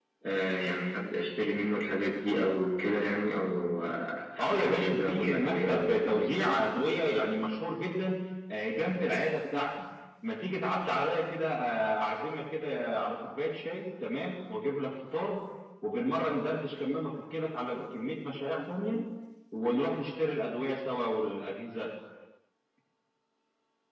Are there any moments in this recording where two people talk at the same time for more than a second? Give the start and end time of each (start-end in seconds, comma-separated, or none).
4.4-6.7